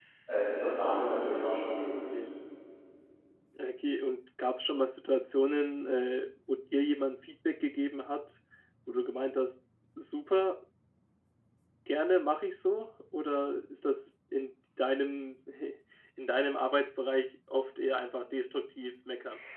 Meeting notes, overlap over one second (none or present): none